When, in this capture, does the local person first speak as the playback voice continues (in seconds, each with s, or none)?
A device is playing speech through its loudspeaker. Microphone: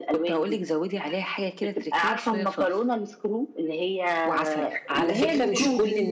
4.9 s